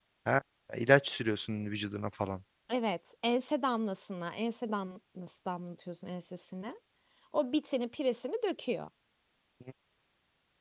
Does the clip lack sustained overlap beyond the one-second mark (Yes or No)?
Yes